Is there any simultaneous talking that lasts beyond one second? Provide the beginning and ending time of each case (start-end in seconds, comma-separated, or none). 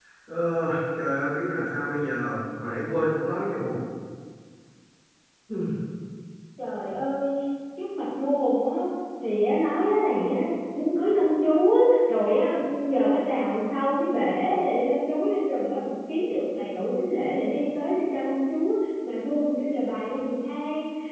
none